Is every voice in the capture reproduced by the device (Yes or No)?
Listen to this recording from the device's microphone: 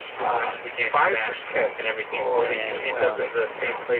No